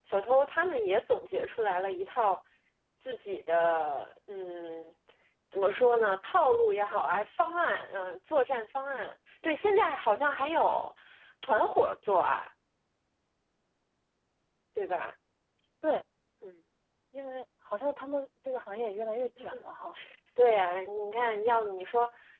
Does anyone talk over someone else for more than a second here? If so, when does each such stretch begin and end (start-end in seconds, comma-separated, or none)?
none